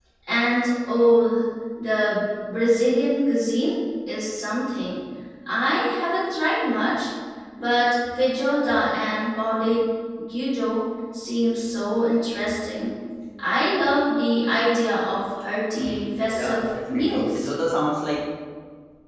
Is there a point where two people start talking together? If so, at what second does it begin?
15.7 s

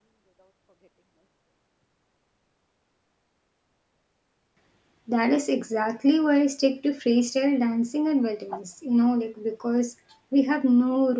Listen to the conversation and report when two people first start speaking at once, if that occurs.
none

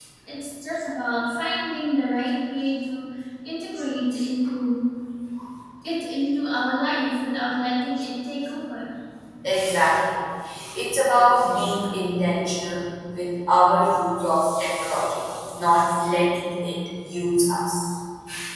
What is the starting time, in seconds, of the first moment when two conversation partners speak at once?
none

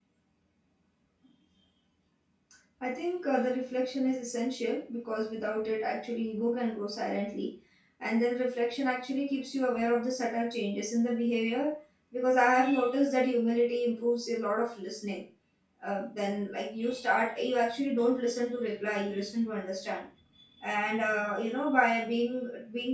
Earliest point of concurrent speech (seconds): none

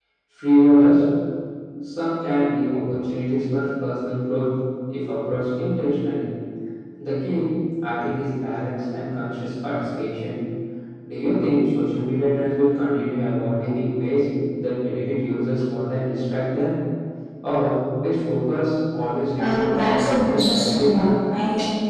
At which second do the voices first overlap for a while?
19.4 s

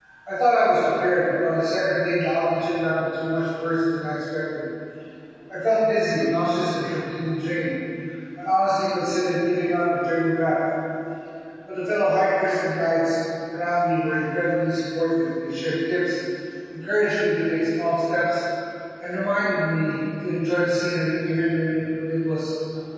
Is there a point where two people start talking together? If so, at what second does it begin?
none

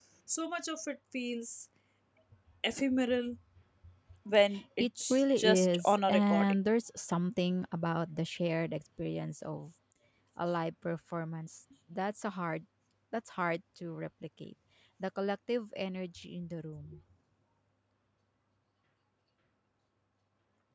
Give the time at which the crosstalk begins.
4.8 s

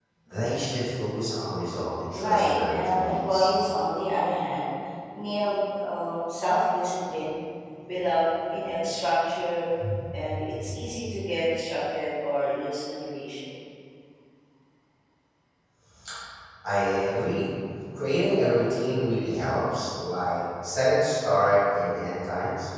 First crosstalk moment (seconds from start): 2.1 s

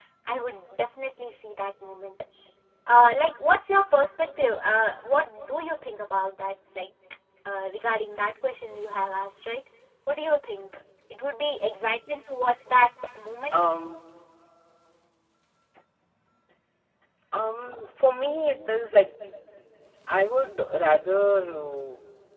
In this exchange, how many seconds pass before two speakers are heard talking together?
none

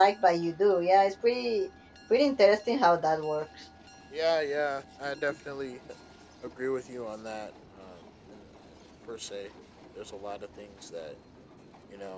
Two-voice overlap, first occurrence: none

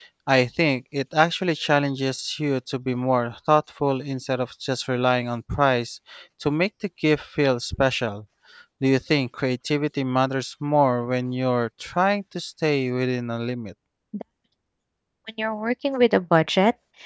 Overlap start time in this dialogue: none

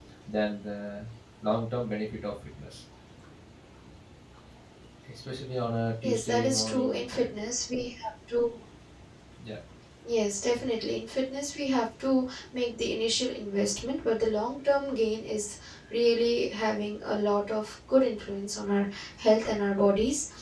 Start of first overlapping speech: 6.0 s

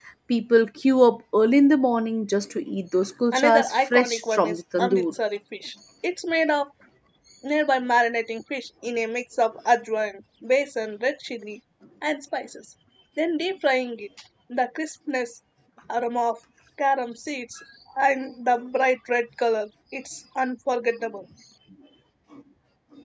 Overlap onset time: 3.3 s

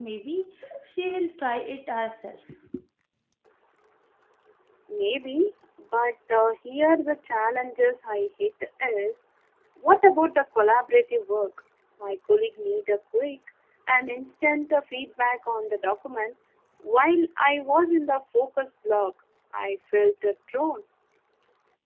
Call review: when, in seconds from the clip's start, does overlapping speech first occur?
none

